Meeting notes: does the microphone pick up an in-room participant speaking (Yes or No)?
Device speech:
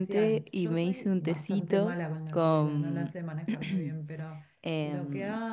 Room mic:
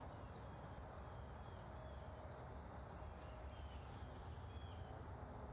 No